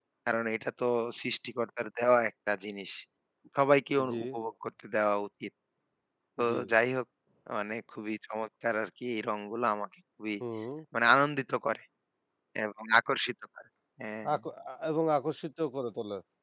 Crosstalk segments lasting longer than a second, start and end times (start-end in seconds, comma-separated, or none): none